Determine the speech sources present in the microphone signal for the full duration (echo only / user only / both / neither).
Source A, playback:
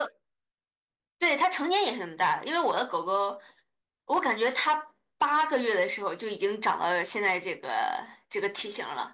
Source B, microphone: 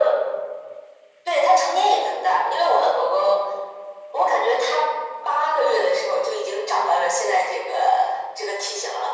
echo only